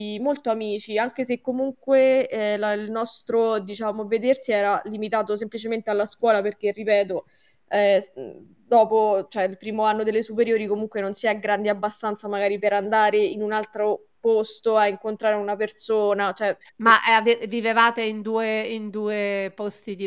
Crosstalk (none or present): none